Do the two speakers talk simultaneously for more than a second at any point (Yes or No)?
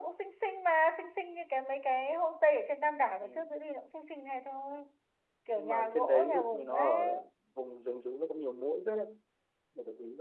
Yes